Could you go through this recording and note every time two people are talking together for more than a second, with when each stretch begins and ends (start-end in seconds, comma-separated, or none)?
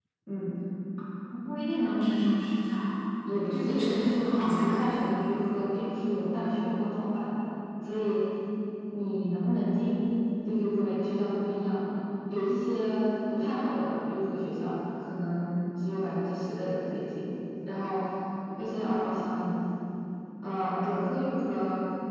3.5-5.0